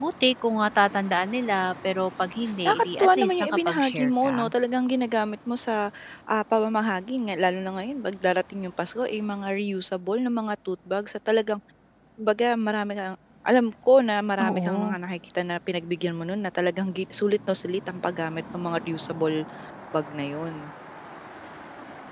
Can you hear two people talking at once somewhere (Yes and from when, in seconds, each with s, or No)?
Yes, from 2.6 s